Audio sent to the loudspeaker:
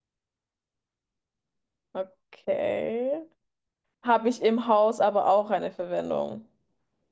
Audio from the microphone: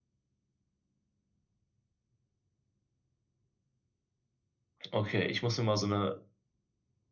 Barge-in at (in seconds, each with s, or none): 4.9 s